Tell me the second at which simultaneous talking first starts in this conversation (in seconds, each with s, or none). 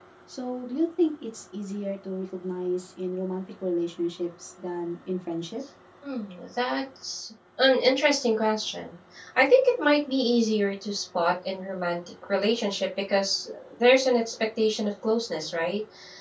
none